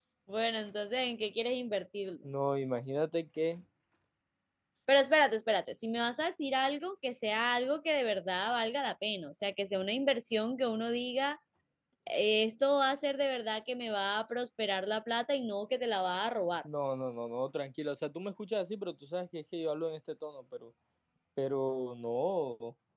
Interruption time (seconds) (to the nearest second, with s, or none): none